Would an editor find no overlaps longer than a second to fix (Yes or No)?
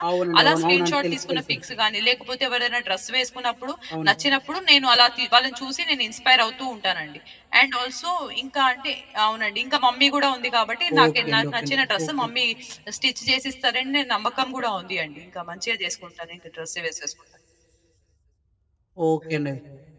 No